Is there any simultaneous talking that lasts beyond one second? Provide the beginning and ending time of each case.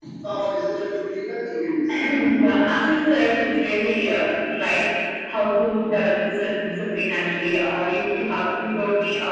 none

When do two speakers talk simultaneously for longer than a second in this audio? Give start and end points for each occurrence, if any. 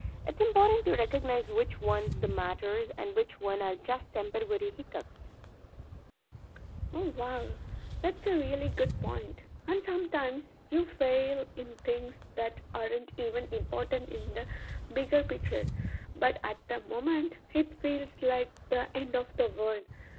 none

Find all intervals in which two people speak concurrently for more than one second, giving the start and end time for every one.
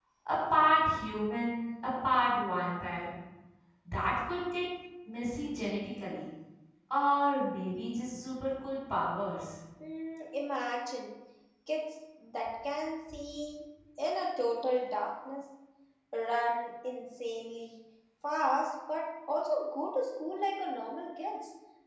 none

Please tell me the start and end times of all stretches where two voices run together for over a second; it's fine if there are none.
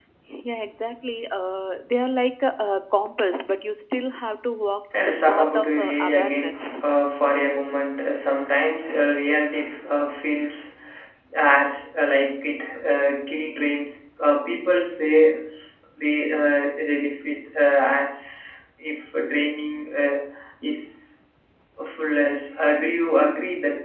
5.0-6.9

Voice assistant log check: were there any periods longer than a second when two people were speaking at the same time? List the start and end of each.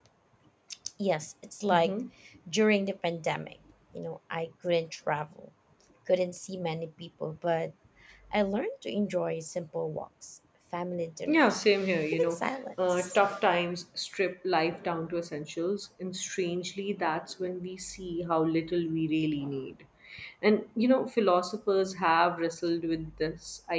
none

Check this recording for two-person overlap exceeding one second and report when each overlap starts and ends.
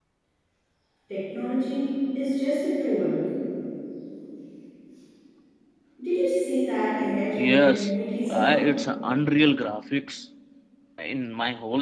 7.4-8.6

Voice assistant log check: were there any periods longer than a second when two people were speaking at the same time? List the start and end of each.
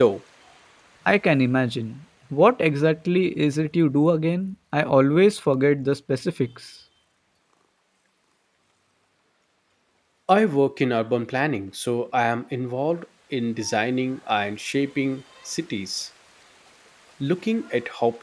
none

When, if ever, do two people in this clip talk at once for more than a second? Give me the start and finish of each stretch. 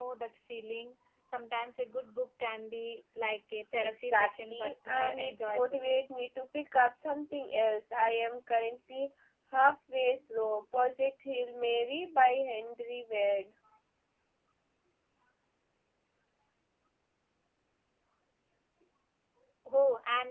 3.8-5.8

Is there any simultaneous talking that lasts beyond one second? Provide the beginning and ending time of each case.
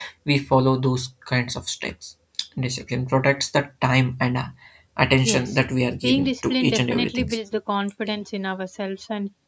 6.0-7.3

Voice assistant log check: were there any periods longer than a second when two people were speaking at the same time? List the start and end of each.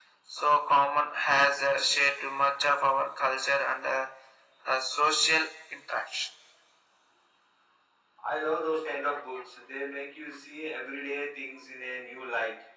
none

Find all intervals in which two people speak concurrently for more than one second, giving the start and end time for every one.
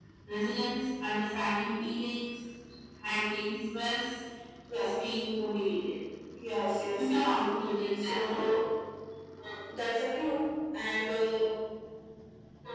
none

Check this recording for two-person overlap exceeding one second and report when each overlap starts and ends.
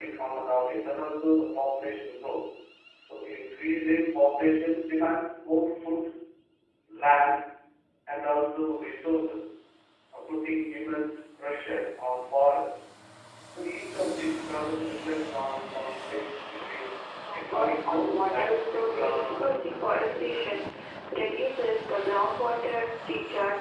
17.3-20.6

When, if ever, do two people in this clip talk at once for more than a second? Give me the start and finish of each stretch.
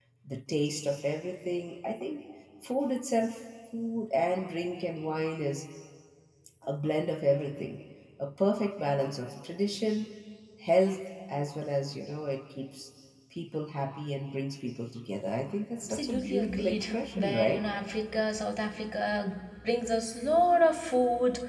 15.8-17.6

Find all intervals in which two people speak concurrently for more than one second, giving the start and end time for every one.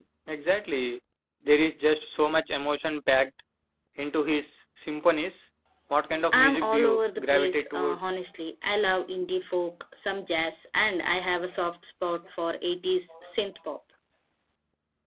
6.3-8.0

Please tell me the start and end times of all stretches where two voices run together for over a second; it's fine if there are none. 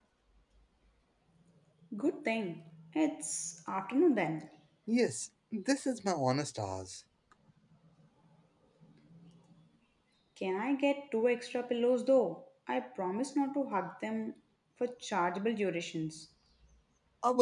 none

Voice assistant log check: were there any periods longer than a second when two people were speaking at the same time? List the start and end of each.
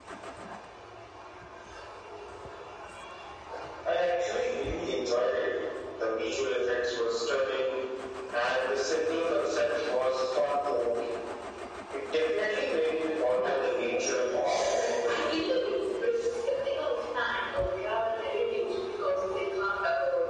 13.4-15.2

